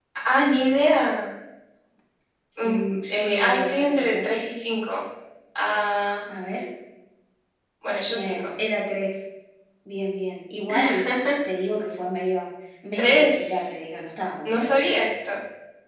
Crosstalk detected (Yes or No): Yes